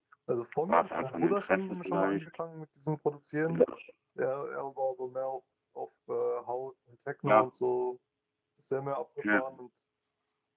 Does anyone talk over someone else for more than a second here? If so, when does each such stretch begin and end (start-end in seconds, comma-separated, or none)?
0.7-2.3